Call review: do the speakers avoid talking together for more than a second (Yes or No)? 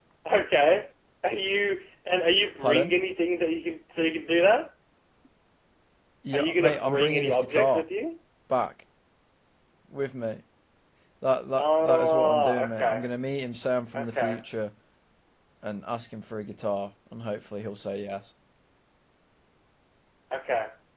No